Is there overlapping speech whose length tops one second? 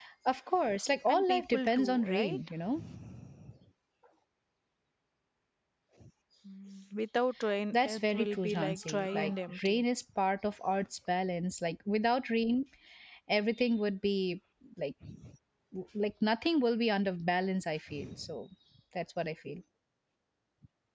Yes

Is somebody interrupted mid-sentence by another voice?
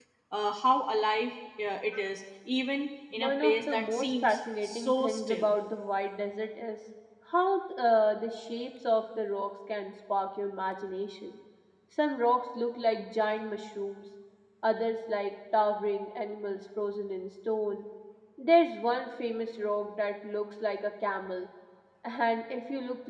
Yes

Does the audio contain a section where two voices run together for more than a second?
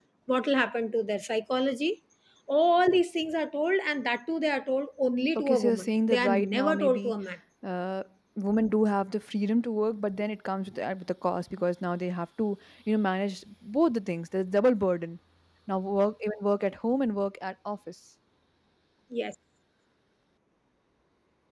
Yes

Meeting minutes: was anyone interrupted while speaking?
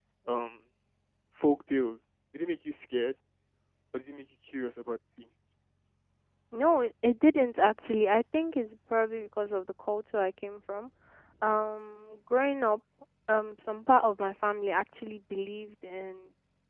No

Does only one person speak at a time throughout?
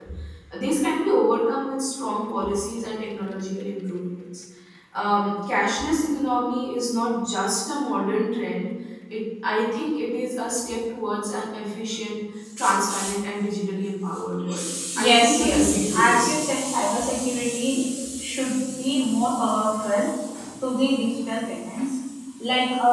No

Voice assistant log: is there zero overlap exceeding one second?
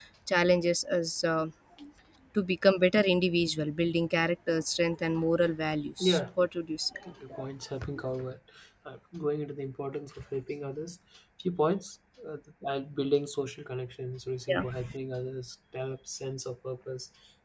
Yes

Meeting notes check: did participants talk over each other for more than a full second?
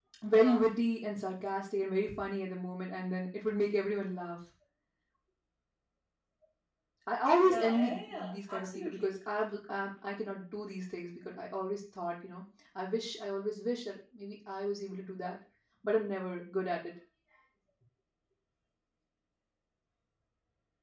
Yes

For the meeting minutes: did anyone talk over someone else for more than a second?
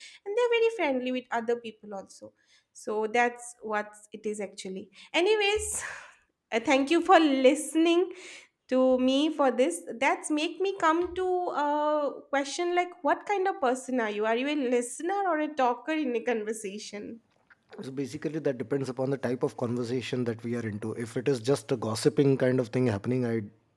No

